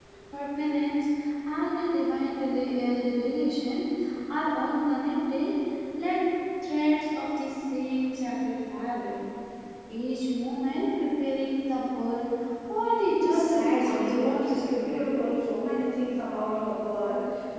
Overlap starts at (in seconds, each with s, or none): 13.2 s